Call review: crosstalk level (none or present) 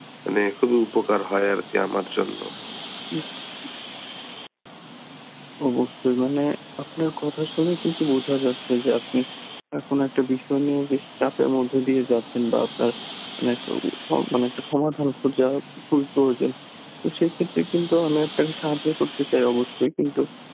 none